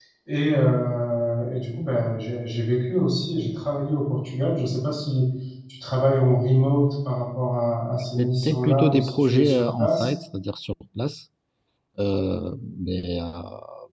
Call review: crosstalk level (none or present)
present